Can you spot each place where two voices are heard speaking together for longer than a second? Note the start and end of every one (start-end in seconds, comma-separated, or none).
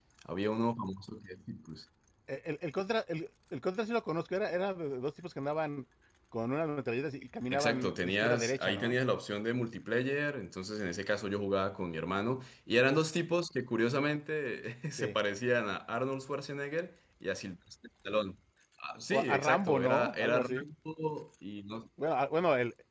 7.5-9.0, 19.1-20.6